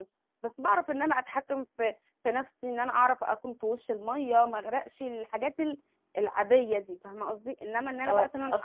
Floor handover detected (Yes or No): Yes